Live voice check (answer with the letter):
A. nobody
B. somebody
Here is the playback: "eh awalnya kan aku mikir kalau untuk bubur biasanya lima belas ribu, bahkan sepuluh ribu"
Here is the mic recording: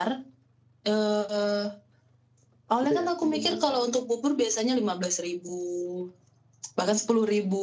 B